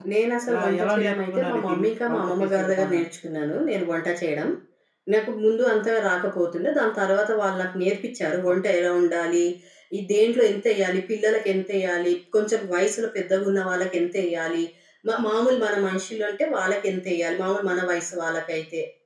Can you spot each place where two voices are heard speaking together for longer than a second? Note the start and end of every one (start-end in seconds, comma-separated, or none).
0.5-3.0